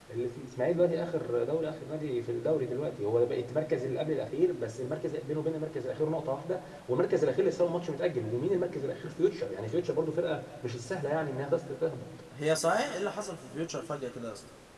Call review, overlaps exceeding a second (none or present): none